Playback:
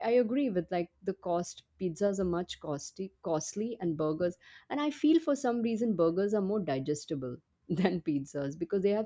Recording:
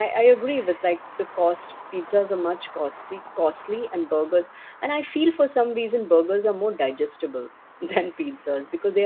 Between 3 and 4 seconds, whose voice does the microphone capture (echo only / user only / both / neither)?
echo only